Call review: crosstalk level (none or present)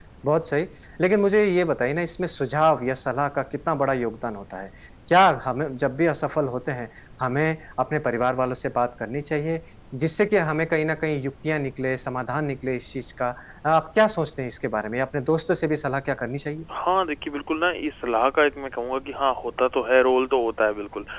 none